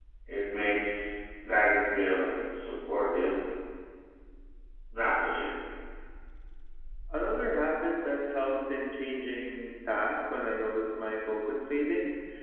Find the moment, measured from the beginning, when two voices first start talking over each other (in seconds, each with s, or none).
none